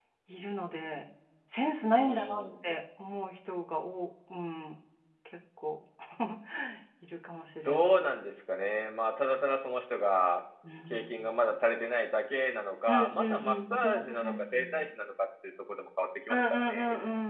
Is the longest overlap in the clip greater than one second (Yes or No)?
Yes